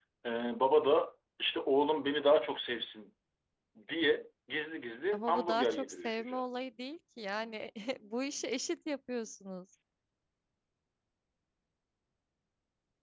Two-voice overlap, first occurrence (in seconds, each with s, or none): 5.1 s